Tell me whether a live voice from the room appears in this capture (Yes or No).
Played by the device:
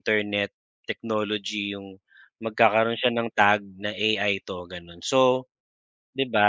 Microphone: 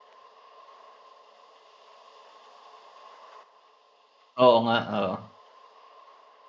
Yes